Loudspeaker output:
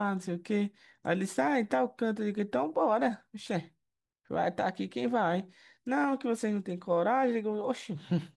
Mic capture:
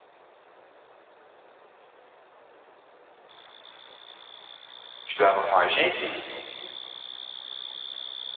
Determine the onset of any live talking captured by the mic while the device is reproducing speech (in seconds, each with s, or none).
5.1 s